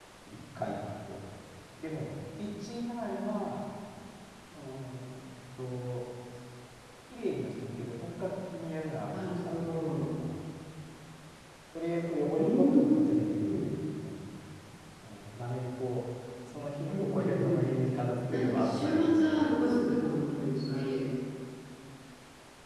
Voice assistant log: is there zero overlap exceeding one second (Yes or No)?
No